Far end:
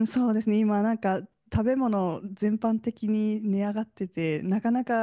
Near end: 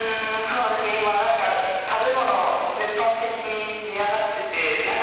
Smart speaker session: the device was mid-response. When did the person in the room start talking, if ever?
none

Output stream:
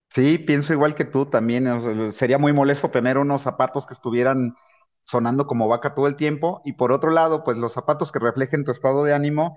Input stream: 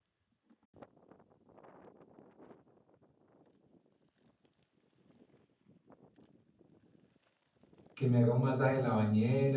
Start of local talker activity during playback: 7.9 s

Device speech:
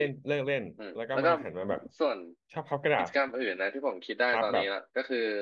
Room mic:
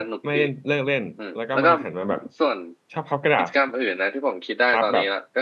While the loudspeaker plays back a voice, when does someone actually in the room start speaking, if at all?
none

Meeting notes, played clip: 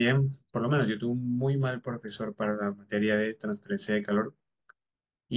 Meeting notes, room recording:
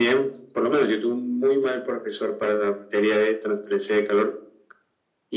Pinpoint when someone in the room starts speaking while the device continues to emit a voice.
none

